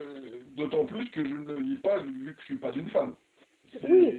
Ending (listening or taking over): taking over